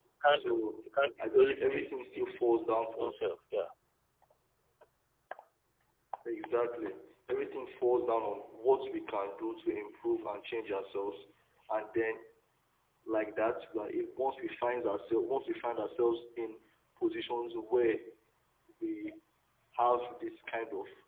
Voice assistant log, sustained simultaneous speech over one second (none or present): present